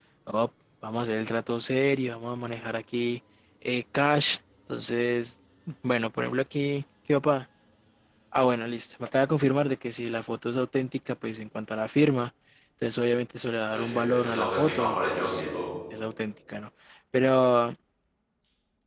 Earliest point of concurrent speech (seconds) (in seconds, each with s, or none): 13.7 s